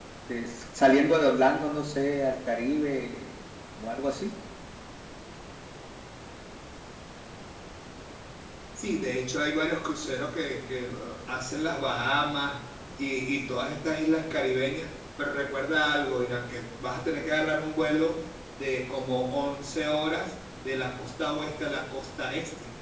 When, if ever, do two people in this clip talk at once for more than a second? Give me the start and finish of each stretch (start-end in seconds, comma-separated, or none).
none